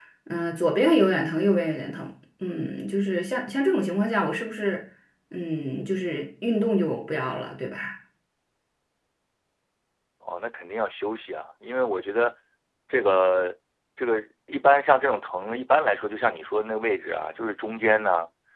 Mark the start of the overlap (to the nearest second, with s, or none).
none